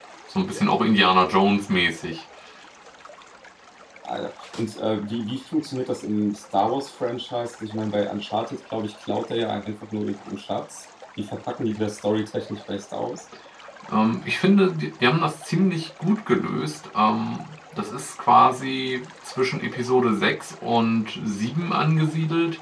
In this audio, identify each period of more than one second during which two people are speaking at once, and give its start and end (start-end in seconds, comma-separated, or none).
none